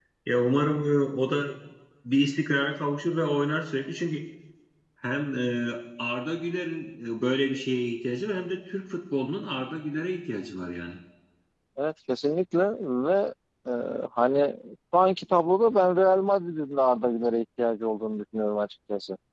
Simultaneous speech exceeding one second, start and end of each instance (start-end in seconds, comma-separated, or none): none